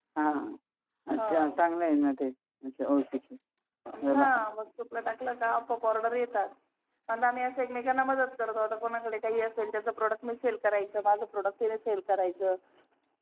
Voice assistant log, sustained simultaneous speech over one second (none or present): none